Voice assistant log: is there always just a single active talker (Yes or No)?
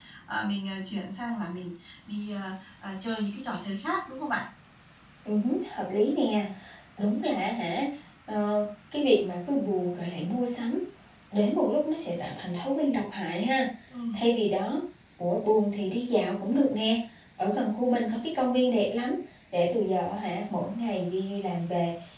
Yes